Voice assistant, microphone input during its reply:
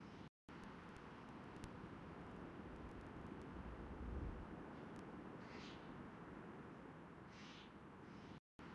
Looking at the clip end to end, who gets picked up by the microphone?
neither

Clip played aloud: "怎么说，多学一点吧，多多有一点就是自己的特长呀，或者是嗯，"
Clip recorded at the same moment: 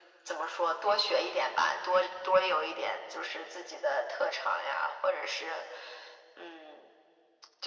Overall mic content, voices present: echo only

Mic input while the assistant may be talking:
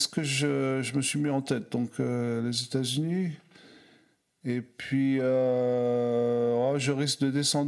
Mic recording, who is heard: echo only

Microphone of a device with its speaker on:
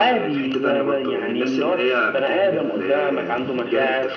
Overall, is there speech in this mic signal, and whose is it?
echo only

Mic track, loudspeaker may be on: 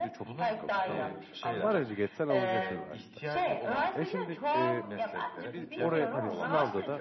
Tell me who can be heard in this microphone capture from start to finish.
both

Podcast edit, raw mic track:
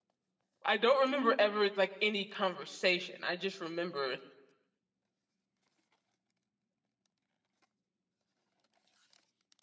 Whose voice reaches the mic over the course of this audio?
user only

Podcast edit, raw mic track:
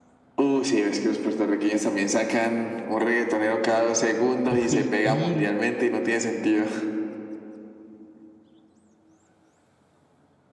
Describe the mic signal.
both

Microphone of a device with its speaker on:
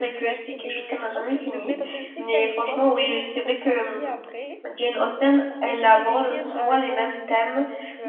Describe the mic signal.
both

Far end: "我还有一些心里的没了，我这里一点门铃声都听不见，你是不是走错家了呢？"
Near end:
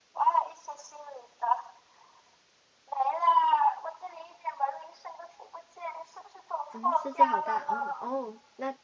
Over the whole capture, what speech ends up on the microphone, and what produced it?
both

